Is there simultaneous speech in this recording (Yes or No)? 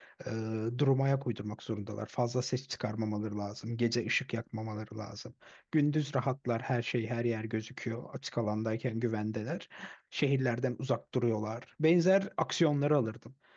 No